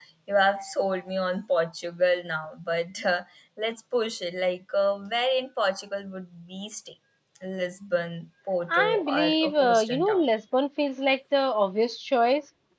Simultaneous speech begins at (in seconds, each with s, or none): 8.7 s